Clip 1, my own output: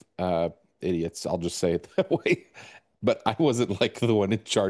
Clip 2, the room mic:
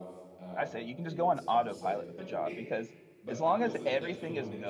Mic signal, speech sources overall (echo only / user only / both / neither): both